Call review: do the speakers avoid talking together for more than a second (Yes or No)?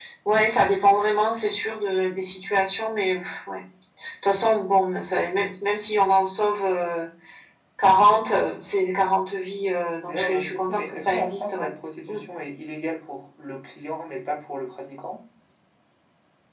No